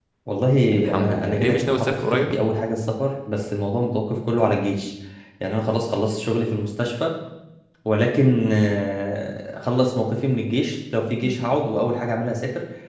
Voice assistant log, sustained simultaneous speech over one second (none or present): present